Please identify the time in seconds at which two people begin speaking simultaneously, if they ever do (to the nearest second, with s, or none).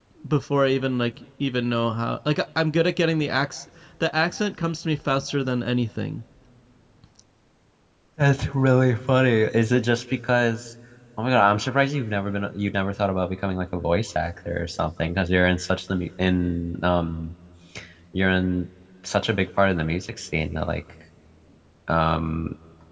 none